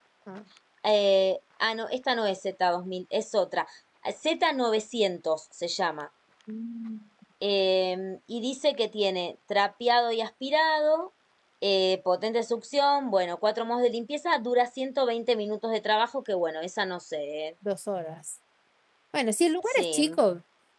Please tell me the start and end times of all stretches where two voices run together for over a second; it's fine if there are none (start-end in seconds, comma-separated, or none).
none